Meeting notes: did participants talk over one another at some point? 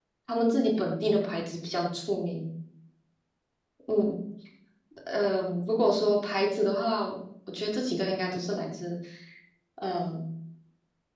No

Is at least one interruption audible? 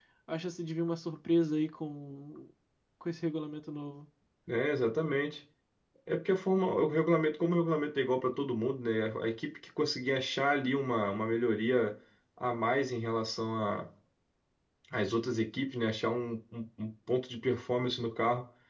No

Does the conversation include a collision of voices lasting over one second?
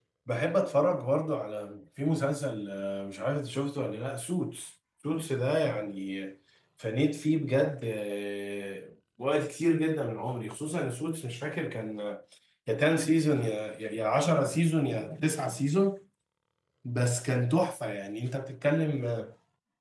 No

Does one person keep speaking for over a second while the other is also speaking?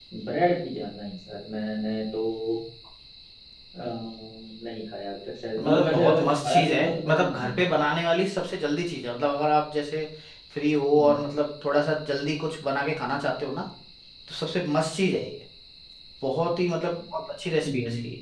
Yes, from 5.6 s

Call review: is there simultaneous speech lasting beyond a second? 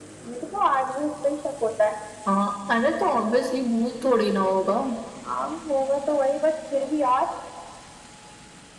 No

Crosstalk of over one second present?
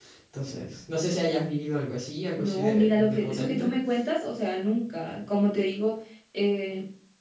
Yes, from 2.4 s

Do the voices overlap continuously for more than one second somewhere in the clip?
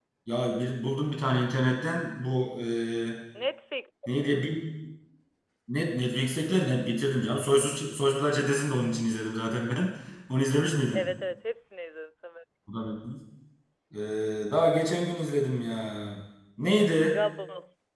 No

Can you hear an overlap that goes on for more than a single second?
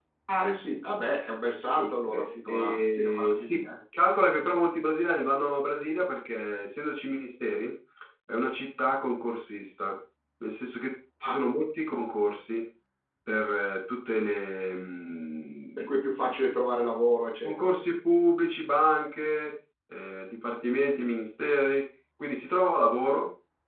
Yes, from 1.8 s

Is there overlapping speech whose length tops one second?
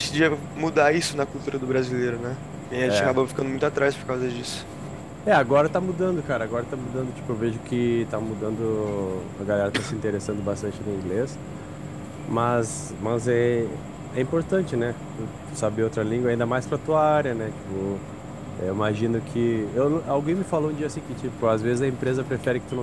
No

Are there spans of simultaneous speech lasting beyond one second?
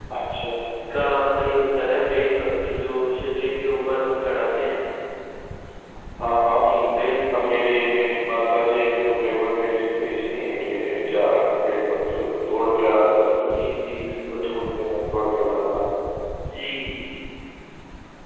No

